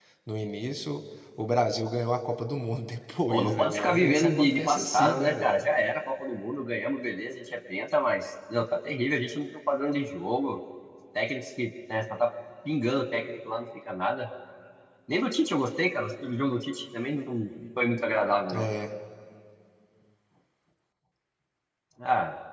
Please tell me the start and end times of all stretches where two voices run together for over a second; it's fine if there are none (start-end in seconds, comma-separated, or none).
3.3-5.5